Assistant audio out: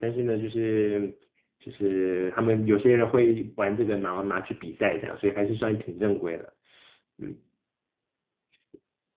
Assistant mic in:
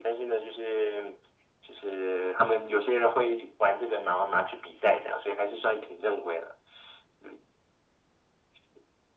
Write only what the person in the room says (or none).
none